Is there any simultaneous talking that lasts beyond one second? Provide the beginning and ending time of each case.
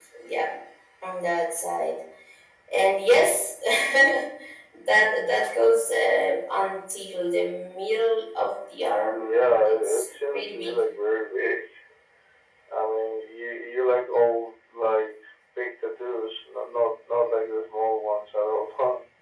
9.2-10.8

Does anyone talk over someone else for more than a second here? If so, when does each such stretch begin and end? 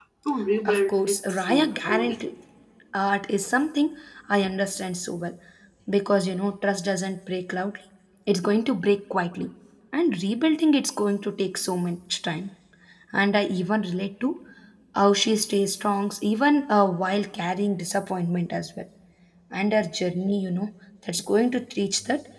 0.7-2.2

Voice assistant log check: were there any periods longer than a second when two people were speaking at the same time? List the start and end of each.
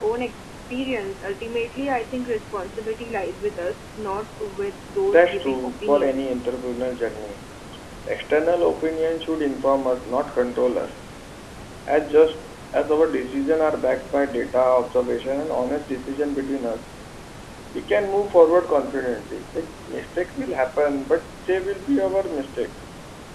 5.1-6.3

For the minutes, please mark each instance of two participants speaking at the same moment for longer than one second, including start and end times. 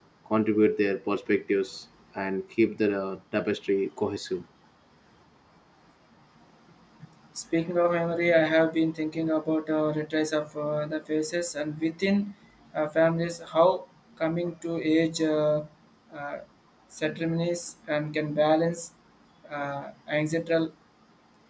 none

